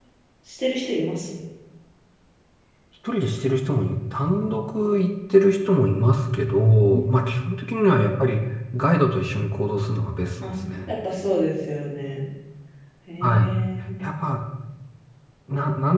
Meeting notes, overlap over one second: none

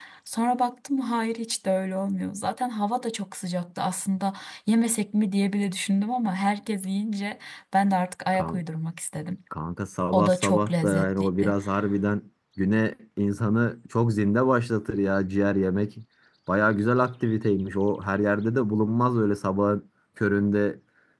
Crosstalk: present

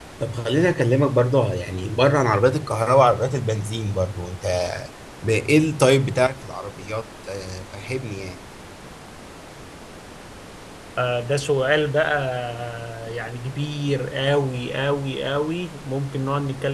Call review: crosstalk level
none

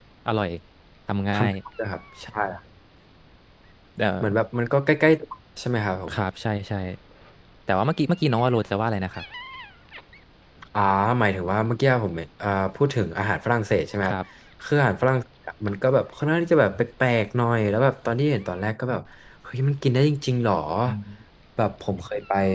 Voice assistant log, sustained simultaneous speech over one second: none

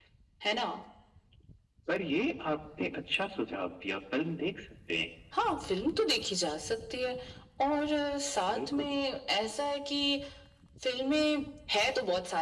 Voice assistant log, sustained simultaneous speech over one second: none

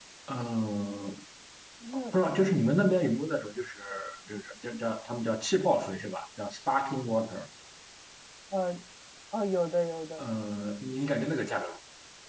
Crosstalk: none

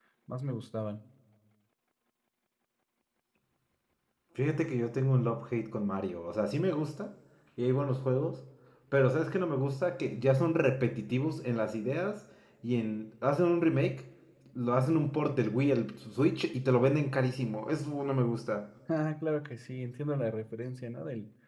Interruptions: none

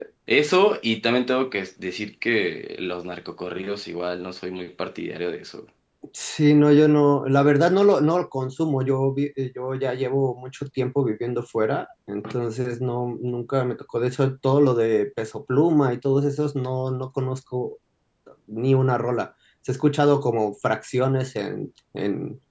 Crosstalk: none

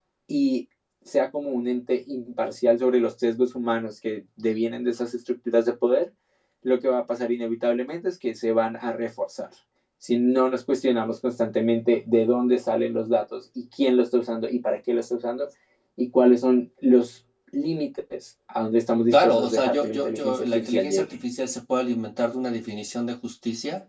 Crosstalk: present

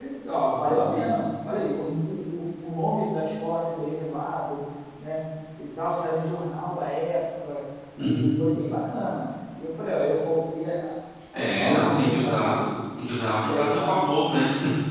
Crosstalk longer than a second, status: present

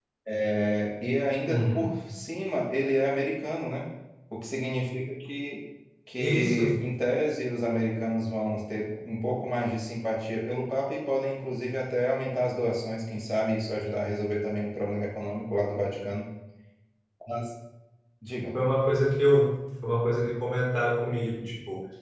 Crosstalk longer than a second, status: none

